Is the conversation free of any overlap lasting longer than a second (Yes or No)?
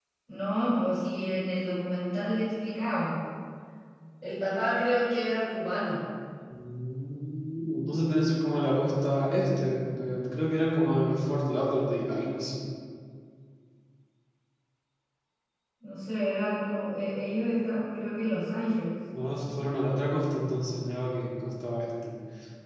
Yes